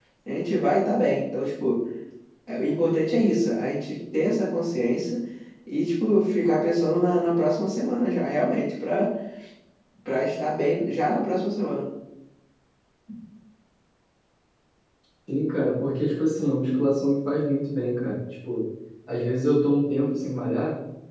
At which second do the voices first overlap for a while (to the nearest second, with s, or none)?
none